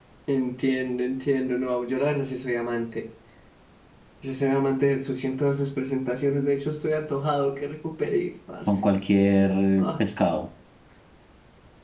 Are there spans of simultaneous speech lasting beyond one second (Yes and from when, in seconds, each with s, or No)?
No